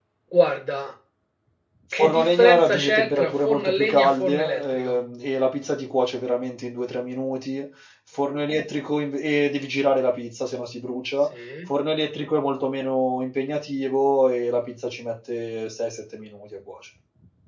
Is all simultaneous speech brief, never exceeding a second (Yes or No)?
No